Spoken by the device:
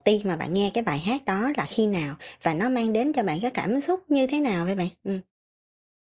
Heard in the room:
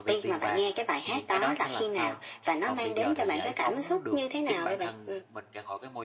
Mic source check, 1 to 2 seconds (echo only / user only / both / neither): both